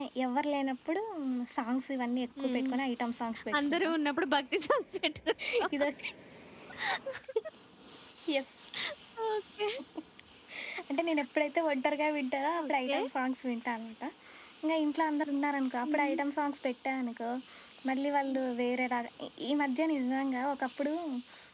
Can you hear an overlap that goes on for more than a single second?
No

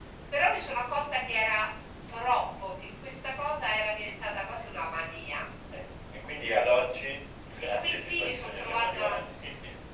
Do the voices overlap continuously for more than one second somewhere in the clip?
Yes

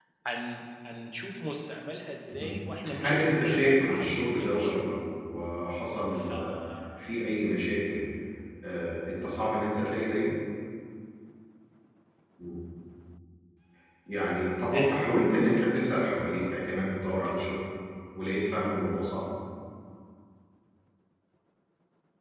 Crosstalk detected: Yes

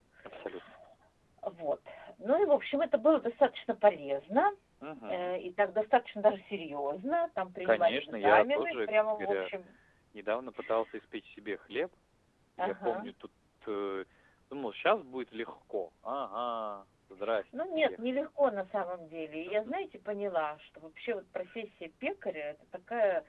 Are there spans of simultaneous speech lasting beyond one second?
Yes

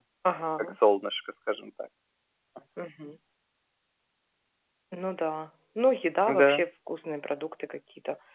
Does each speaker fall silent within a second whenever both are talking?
Yes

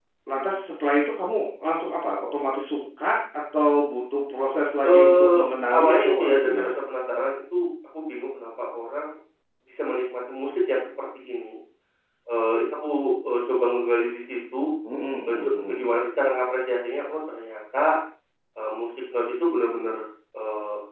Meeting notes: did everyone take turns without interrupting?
No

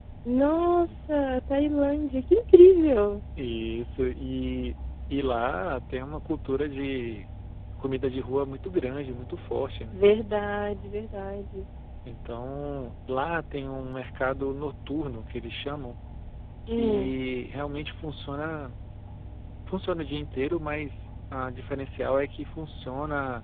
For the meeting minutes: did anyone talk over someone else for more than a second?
No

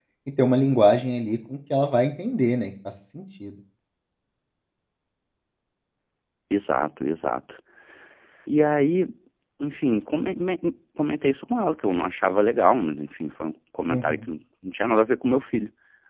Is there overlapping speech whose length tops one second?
No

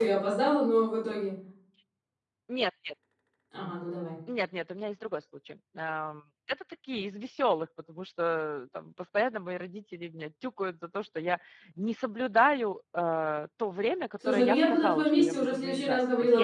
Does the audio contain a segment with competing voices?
Yes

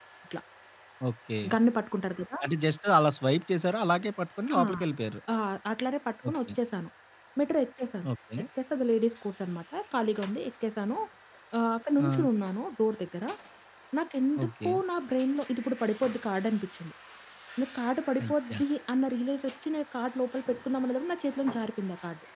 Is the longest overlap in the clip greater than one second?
No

